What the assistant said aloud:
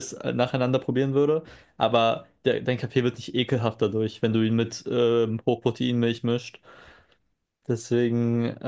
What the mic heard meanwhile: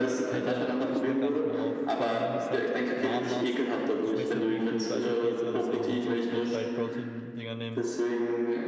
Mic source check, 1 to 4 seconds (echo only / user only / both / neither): both